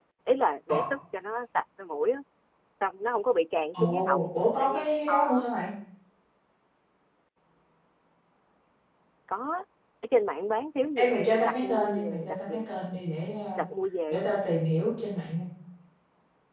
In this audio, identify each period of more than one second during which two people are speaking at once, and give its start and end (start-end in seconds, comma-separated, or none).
3.7-5.4, 11.0-12.9